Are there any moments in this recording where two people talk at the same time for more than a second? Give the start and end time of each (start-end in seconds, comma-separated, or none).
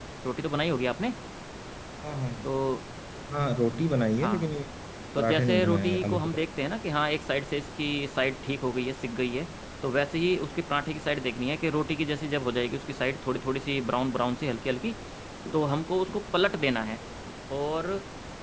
5.2-6.5